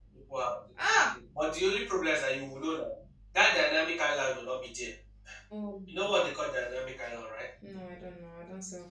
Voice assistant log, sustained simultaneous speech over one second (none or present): none